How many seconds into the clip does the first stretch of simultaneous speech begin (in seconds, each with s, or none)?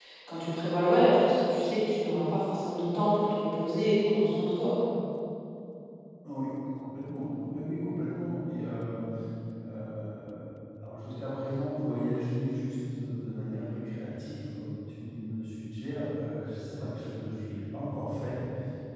none